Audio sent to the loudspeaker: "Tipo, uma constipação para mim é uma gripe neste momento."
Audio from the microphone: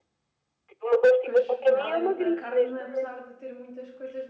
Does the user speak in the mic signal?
Yes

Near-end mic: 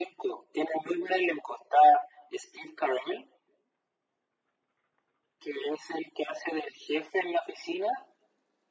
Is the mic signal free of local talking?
Yes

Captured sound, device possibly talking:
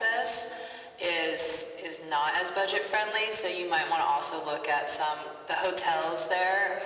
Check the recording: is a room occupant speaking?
No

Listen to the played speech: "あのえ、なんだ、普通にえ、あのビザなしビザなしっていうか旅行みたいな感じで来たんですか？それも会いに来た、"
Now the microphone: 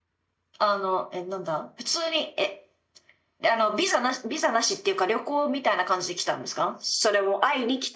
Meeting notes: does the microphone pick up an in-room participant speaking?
No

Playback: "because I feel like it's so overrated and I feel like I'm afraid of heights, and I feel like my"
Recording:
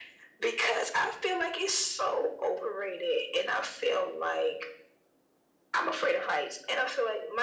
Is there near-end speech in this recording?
No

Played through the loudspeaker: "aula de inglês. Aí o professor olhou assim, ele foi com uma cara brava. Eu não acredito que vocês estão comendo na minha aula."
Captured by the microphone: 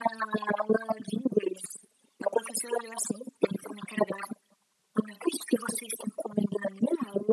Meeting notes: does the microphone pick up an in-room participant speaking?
No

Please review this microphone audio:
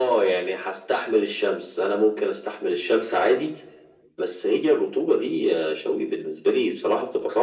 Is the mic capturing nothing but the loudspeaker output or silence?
Yes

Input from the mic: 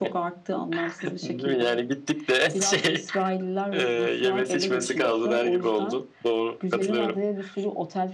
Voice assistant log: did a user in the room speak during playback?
No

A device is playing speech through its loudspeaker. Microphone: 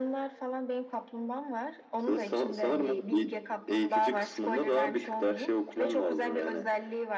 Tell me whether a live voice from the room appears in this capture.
No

